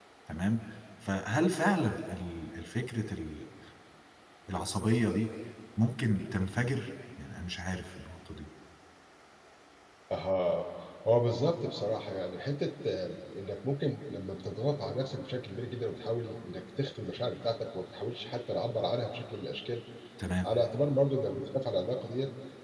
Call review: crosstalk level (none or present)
none